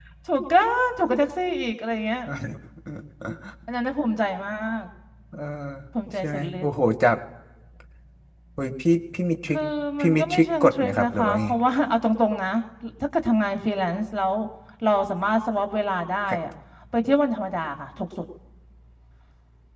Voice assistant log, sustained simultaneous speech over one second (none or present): present